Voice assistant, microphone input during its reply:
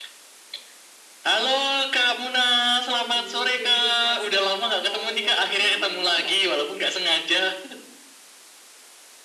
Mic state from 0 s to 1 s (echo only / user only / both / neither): neither